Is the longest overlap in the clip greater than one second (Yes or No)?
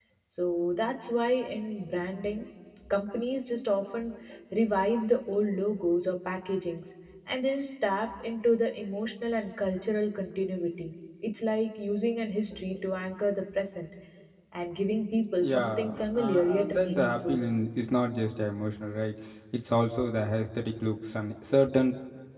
Yes